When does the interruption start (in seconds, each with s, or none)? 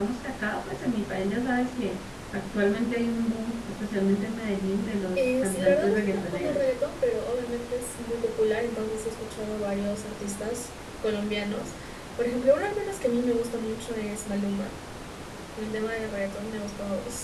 5.2 s